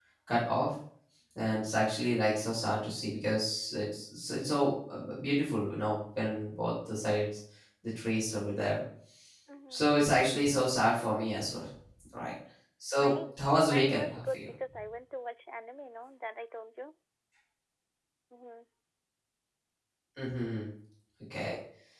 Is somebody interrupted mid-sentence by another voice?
Yes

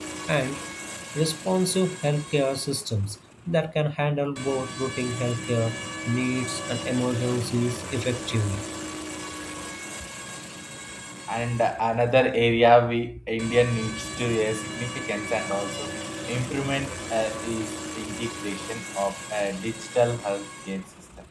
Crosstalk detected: No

